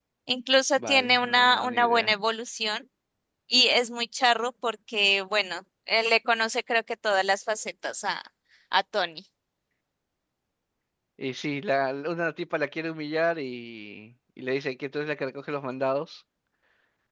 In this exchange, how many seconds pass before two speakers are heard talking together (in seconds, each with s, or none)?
0.8 s